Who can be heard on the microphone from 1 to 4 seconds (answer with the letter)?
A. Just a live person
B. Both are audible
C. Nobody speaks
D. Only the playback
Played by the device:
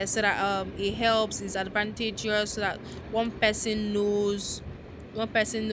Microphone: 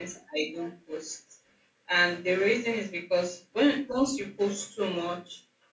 A